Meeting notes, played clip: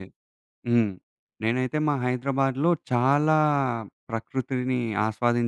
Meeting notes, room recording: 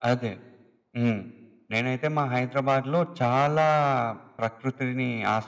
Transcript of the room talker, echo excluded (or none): none